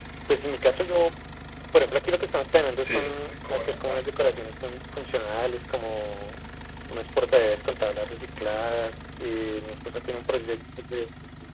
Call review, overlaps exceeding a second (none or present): present